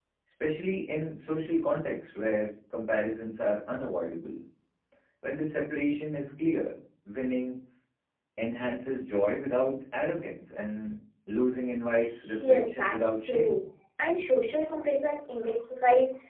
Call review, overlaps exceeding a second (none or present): present